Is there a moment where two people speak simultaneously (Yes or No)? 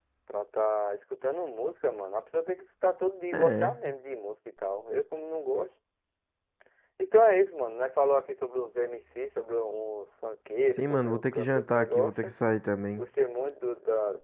Yes